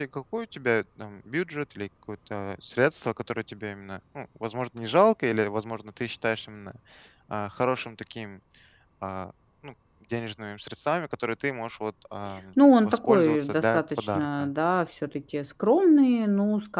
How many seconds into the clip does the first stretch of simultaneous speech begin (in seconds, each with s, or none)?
12.8 s